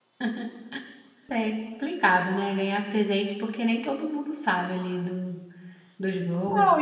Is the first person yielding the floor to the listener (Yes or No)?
Yes